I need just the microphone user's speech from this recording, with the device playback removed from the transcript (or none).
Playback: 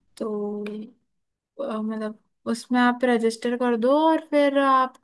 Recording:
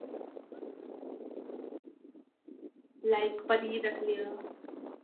लाइक पनीर रख लिया